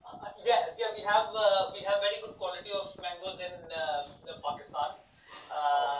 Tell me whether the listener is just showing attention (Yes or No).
Yes